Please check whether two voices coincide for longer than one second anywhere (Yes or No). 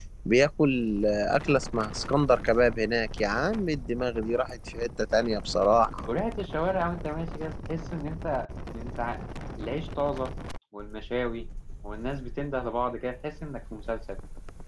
No